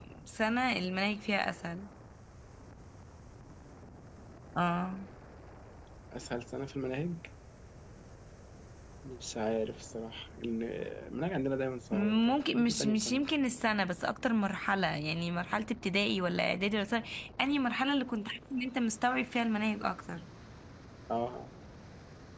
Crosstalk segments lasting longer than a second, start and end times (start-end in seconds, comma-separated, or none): 11.9-13.2